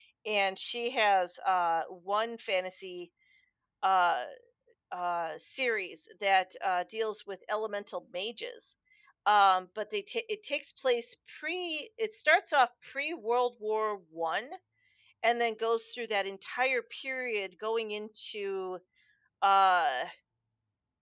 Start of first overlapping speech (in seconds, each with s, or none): none